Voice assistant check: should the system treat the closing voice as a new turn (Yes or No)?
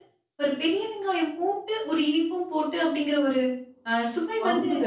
Yes